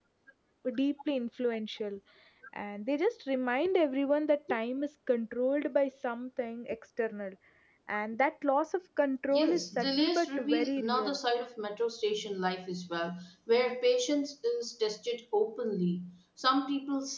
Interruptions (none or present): present